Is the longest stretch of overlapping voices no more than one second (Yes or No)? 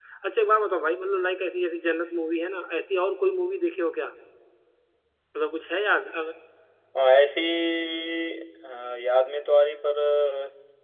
Yes